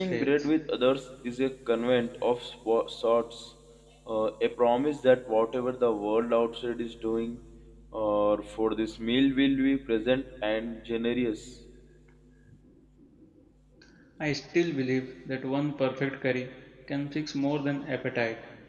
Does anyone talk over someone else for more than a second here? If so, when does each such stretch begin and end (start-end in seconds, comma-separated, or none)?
none